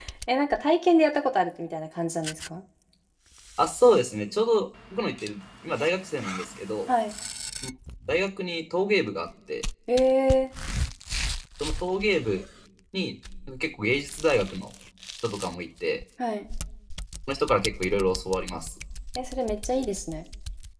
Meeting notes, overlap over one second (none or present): none